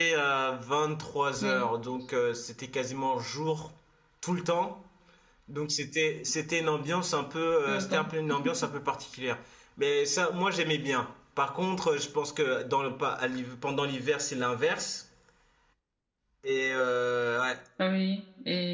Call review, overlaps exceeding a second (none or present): none